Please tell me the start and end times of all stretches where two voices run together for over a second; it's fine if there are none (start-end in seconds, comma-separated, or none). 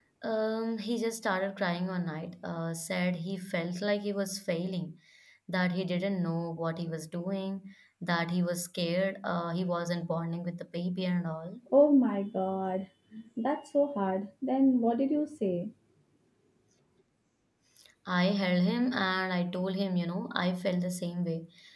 none